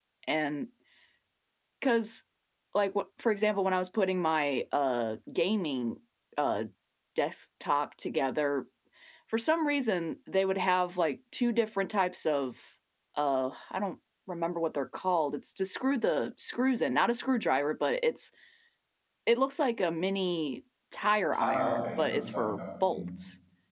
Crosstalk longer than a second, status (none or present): present